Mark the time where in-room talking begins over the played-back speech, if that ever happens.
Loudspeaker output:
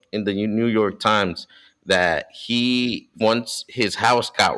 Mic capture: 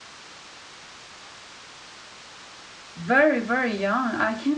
3 s

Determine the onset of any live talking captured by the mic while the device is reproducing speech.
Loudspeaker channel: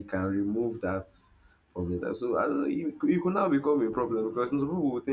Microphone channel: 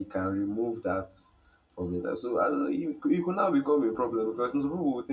none

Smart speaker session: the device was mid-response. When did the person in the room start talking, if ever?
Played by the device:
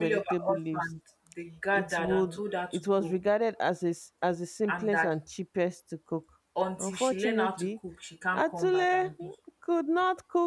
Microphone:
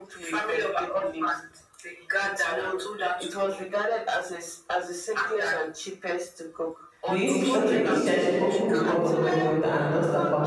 7 s

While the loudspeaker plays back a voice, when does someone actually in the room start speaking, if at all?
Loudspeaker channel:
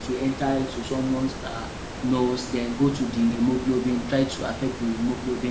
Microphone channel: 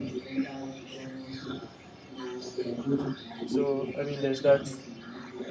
3 s

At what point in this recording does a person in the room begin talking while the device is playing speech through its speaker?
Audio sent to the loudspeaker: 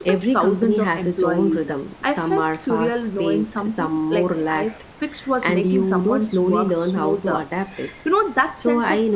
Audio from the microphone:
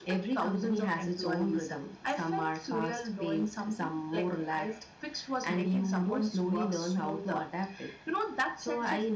none

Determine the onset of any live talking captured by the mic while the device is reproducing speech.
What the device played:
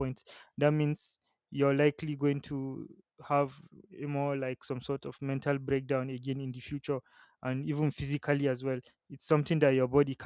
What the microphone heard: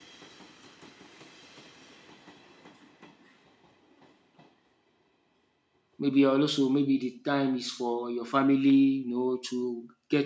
6 s

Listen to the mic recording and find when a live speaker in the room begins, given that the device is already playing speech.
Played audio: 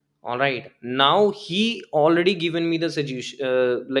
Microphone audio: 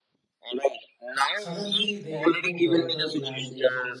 1 s

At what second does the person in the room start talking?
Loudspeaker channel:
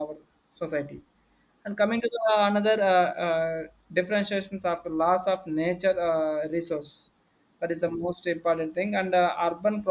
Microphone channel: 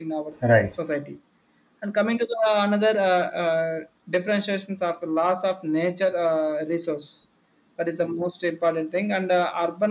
0 s

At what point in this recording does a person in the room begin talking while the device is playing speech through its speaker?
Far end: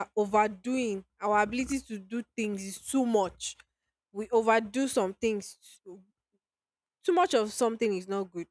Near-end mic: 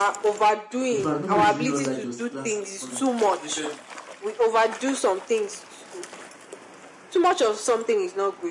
1 s

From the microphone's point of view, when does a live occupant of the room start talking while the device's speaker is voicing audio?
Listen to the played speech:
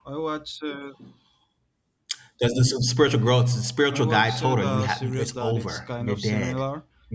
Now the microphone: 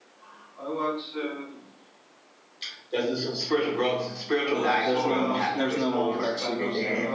4 s

